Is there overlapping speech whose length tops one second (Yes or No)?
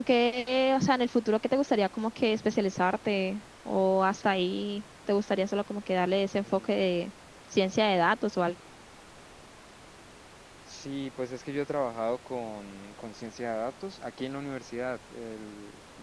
No